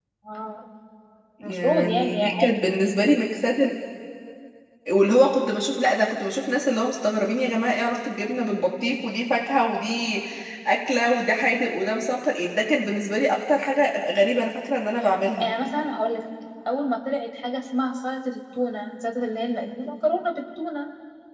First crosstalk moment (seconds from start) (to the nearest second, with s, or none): 1 s